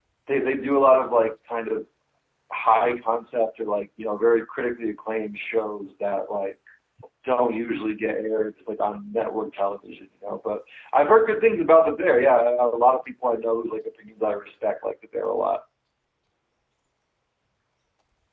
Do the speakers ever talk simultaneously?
No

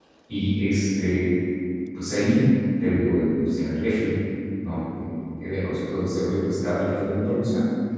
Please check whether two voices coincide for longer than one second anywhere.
No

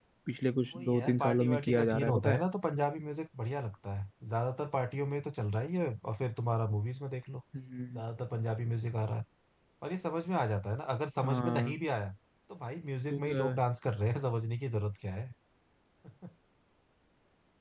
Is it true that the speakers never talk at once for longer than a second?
No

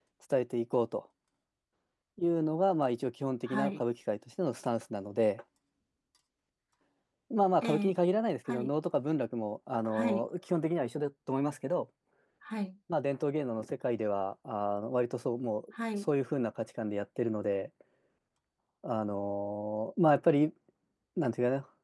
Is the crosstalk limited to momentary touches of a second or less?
Yes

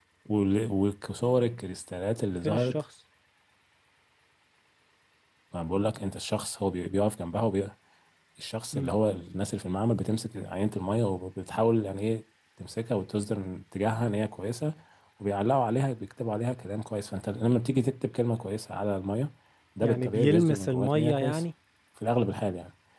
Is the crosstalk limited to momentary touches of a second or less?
No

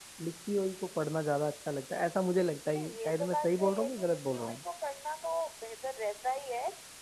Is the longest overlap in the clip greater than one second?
Yes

